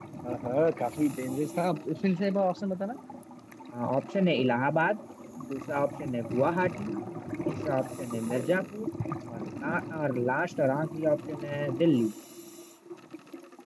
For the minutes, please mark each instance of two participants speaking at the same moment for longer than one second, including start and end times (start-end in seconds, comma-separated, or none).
none